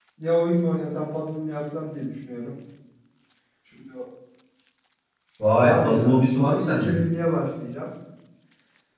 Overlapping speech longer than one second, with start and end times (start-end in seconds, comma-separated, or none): 5.6-7.0